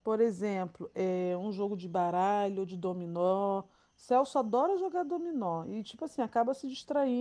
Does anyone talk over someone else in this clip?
No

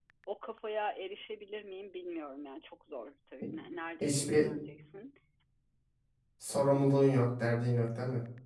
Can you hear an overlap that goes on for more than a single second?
No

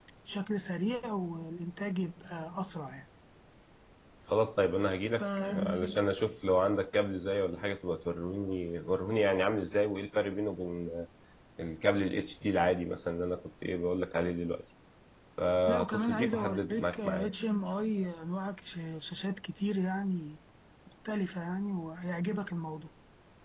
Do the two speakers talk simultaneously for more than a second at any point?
Yes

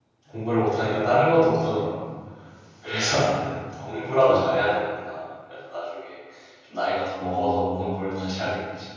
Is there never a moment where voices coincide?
No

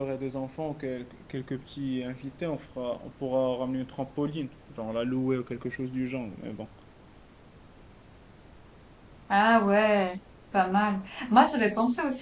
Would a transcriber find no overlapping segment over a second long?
Yes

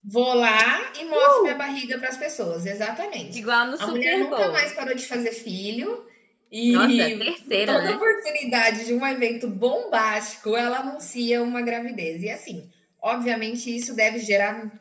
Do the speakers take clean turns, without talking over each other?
No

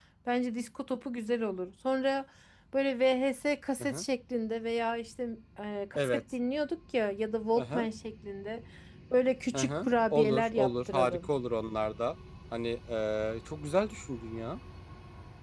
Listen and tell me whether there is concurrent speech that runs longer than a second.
Yes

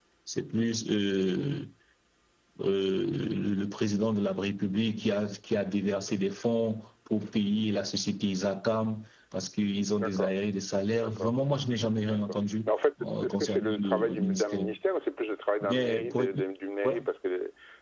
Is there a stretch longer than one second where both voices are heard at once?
Yes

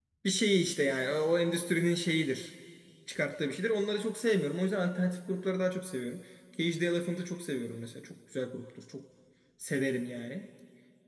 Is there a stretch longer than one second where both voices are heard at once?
No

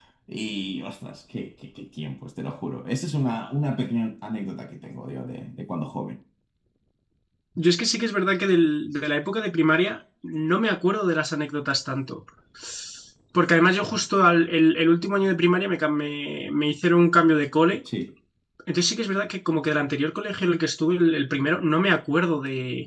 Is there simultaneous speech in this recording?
No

